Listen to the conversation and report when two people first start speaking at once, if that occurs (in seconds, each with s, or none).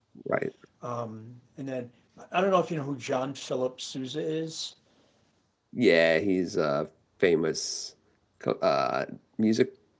none